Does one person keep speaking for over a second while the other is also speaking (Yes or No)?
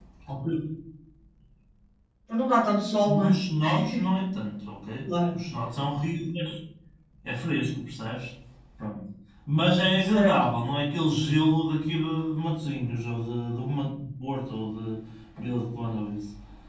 No